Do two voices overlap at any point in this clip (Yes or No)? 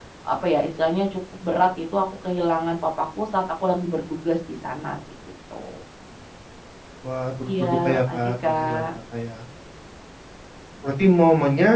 Yes